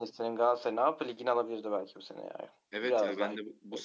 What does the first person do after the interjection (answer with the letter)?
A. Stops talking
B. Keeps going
A